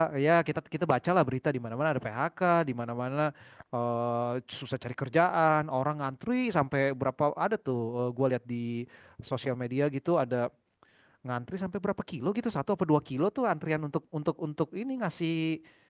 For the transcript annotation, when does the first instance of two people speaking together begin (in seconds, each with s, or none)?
none